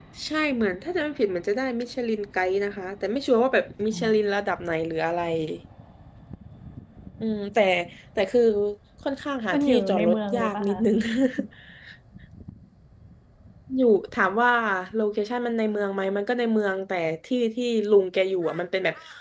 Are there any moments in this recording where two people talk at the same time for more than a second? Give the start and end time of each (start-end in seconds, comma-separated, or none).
9.5-10.8